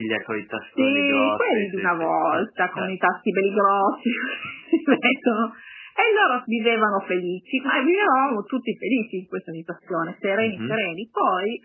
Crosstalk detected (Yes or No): Yes